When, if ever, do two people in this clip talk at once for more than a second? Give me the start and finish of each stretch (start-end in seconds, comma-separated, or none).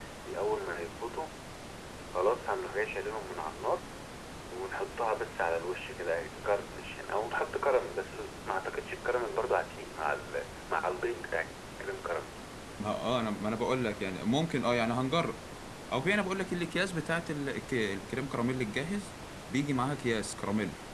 none